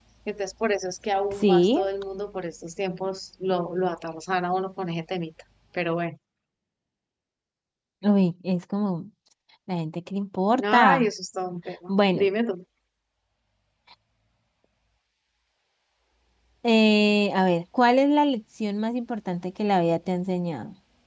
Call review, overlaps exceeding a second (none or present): none